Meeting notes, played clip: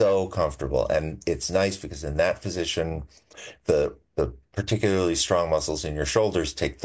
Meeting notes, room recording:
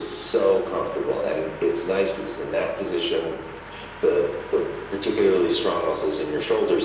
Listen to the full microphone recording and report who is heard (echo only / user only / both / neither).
echo only